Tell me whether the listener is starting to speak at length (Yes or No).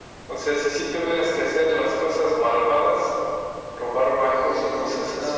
Yes